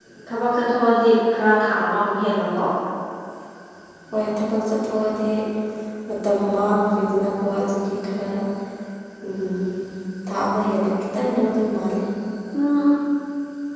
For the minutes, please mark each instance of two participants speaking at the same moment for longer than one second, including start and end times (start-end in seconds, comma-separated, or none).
none